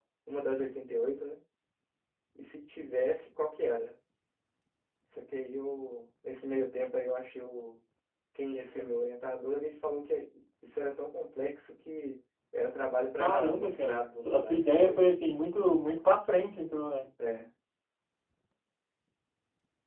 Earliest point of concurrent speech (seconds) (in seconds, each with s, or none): 13.2 s